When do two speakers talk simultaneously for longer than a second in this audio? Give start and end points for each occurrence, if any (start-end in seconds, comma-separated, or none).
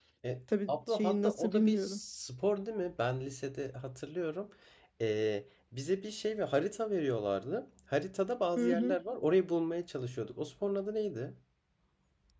0.7-2.0